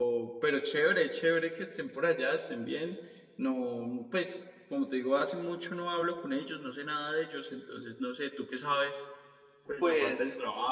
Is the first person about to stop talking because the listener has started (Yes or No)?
Yes